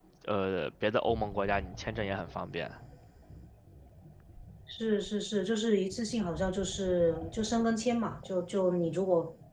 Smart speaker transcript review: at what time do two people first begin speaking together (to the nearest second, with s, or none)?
none